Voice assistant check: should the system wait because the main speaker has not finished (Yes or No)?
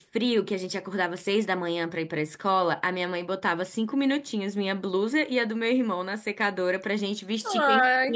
No